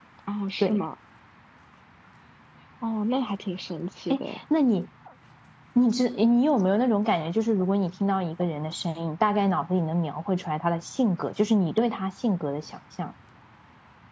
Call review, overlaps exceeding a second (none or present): none